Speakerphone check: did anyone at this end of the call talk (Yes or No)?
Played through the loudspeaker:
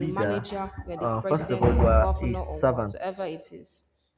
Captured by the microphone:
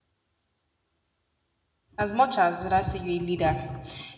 Yes